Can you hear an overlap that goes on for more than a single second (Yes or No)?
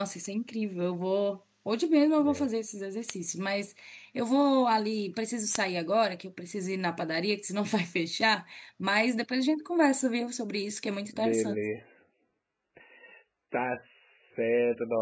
No